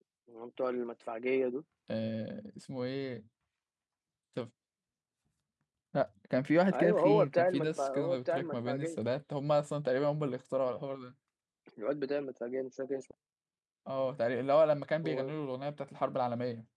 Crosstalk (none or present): present